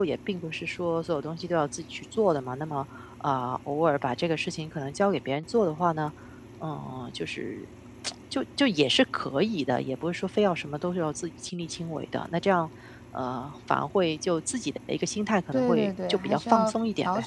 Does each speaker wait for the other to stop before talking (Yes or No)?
No